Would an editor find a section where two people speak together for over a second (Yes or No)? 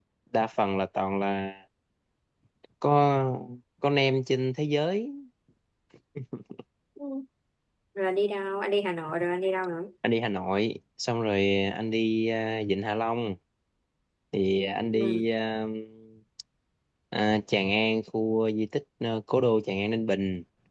No